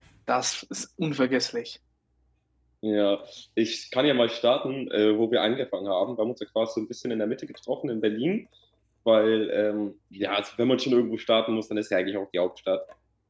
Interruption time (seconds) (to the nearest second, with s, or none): none